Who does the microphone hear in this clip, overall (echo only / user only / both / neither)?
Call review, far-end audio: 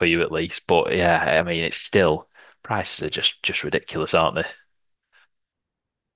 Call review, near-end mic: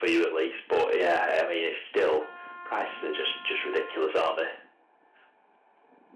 echo only